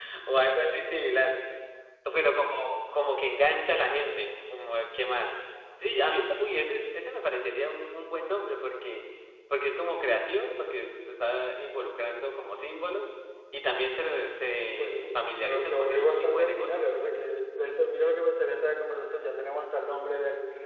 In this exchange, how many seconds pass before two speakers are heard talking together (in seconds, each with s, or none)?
14.8 s